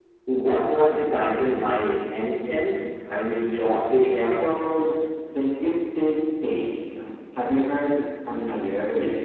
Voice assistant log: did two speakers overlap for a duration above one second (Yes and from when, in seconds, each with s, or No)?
No